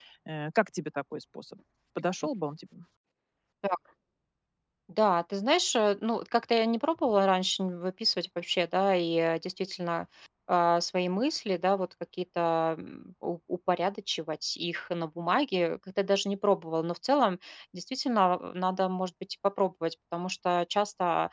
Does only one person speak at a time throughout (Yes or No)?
Yes